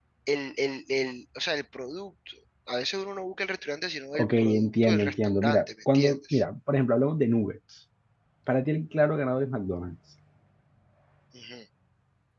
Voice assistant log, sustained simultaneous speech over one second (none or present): present